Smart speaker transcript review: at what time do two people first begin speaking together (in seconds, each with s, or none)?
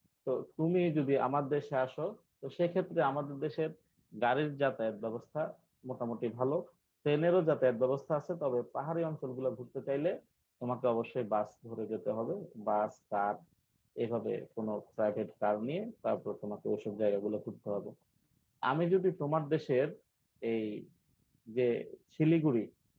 none